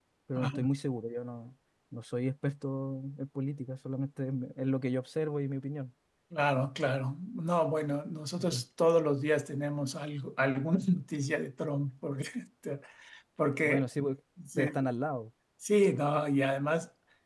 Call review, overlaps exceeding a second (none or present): none